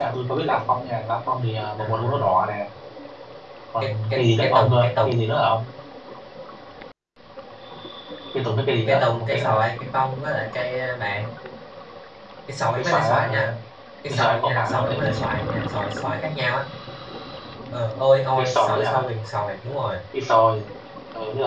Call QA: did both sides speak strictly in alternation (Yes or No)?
No